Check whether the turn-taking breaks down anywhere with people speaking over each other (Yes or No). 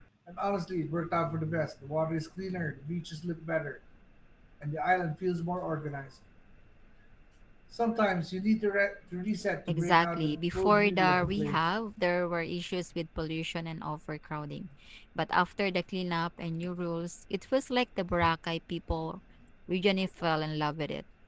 Yes